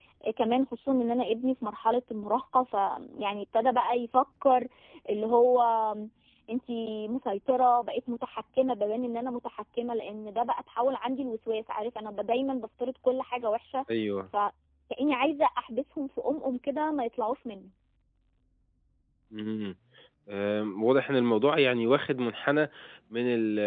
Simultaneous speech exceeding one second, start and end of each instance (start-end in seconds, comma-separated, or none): none